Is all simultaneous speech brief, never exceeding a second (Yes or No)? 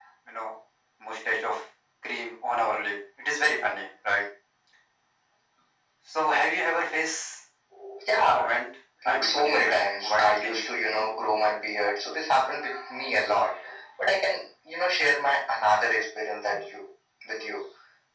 No